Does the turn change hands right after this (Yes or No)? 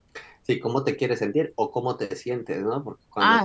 No